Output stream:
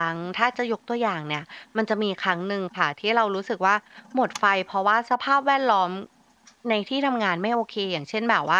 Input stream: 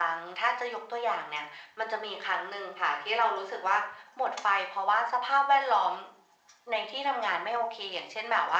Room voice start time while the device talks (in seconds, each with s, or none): none